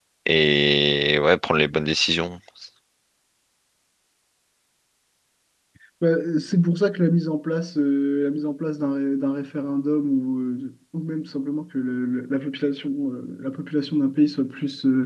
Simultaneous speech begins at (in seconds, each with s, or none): none